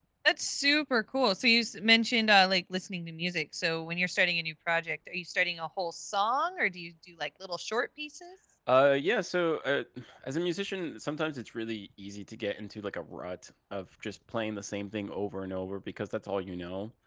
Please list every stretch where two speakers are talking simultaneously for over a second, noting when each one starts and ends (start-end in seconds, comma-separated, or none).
none